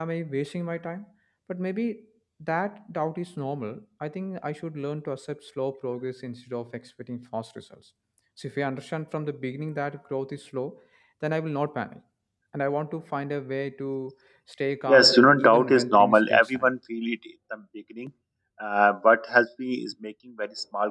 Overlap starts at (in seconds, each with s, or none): 14.9 s